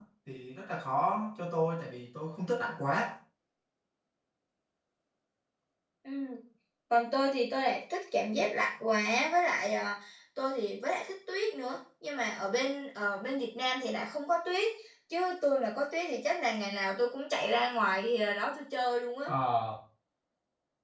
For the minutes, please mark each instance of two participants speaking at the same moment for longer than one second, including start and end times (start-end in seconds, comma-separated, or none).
none